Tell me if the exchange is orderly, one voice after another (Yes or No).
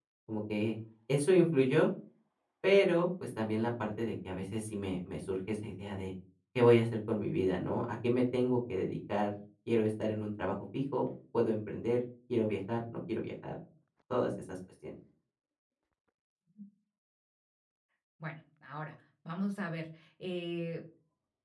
Yes